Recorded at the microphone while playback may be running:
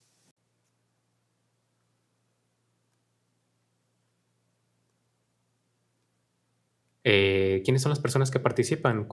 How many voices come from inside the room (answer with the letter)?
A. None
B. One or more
B